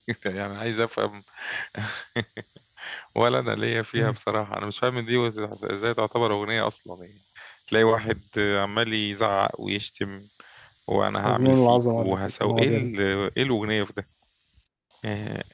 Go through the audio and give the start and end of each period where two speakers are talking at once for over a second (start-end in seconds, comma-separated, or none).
11.2-12.9